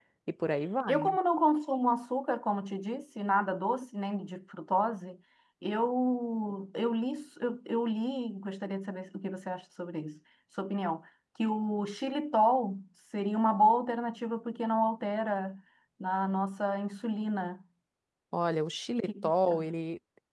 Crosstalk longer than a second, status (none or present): none